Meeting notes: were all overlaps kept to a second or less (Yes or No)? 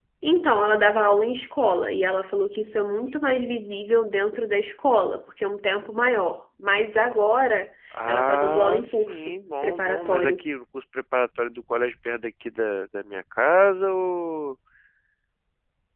No